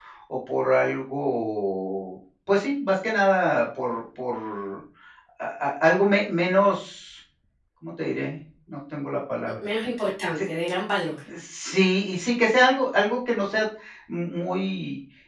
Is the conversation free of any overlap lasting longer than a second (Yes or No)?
Yes